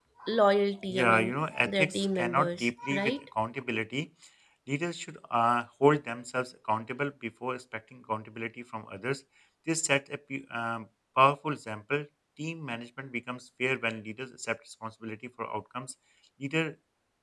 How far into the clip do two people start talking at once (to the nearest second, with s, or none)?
1 s